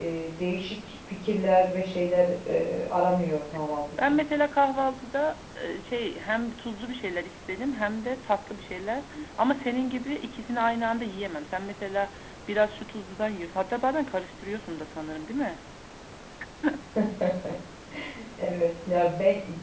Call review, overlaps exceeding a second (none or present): none